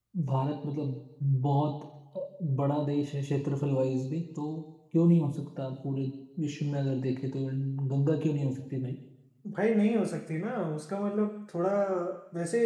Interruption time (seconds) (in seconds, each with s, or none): none